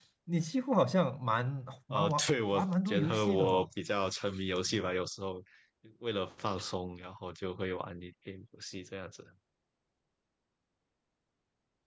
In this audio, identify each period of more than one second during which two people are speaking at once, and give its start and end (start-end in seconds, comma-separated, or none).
1.9-3.7